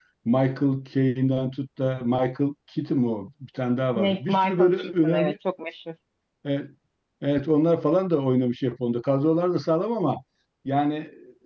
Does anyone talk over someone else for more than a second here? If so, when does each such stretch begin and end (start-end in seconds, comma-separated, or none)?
4.0-5.3